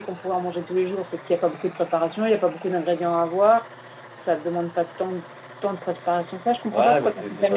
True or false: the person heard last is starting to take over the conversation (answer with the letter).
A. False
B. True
B